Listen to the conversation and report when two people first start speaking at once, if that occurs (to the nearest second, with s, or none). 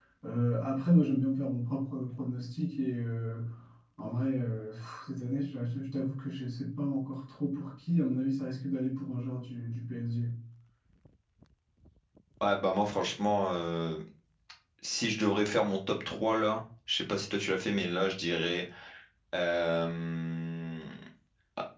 none